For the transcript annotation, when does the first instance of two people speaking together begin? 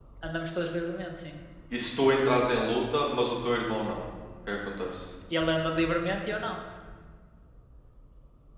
none

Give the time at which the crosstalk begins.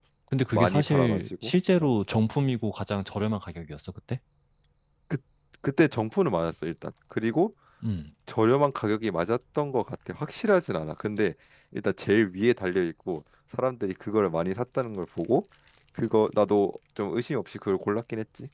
0.5 s

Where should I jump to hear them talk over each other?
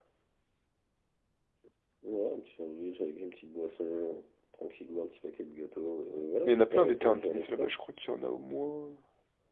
6.4 s

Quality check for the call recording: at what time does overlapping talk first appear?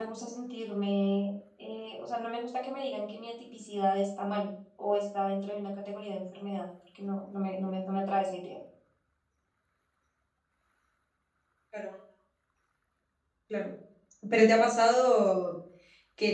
none

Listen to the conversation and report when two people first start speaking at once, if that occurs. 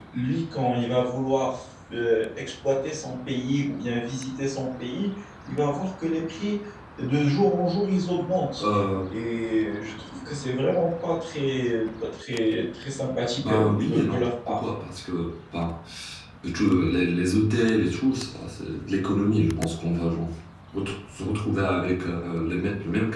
13.4 s

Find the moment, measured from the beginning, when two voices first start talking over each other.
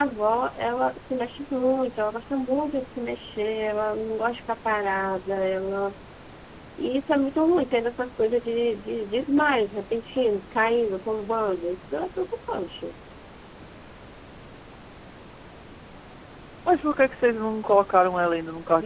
none

